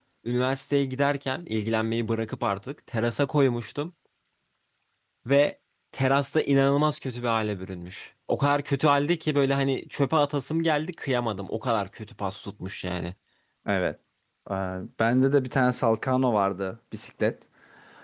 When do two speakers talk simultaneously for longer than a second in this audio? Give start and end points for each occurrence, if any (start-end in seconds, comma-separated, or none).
none